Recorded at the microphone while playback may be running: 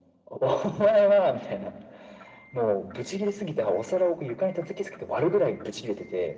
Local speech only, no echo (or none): none